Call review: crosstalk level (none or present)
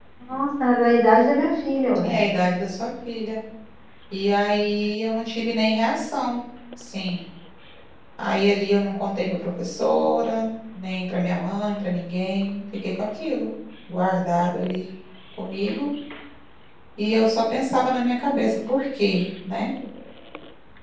none